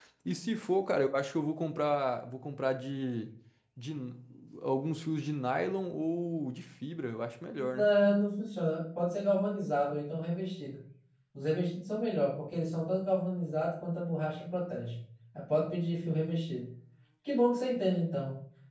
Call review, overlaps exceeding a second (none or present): none